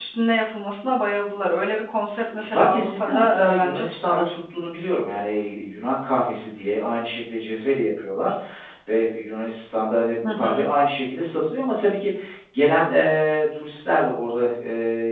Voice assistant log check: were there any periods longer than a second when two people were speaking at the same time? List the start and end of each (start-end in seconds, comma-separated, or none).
2.4-4.2